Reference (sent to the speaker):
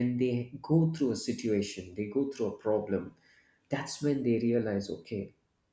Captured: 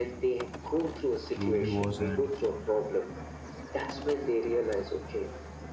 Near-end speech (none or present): present